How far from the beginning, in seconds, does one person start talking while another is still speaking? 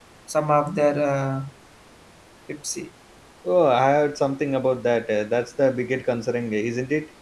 none

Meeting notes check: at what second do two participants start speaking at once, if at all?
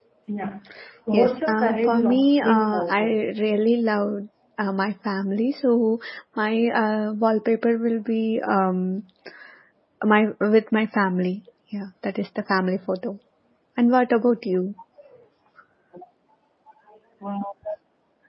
1 s

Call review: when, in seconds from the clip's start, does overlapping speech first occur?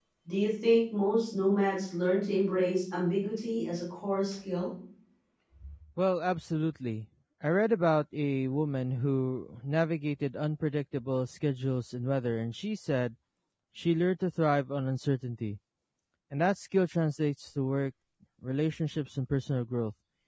none

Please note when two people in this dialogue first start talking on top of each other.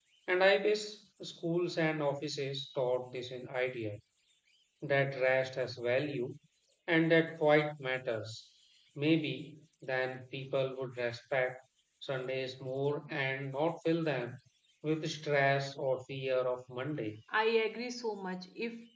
none

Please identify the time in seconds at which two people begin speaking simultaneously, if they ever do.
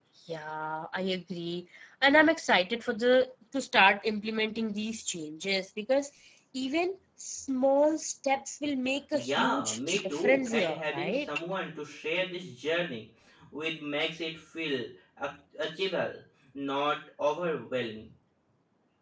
9 s

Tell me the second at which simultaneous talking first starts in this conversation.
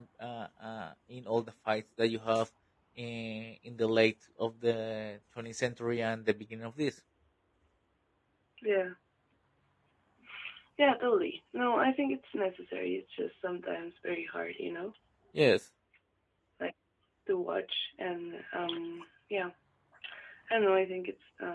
none

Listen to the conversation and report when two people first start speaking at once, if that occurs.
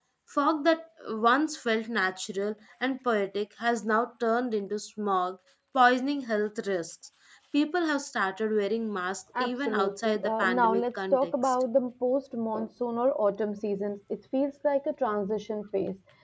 9 s

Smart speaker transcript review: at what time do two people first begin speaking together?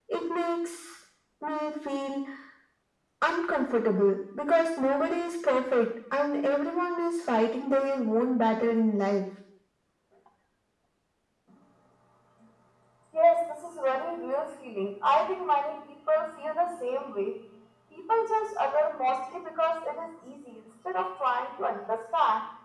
none

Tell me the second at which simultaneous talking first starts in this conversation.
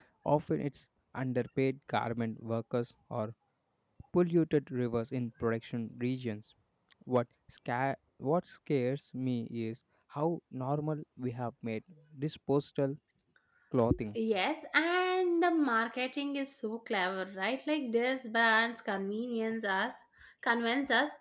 none

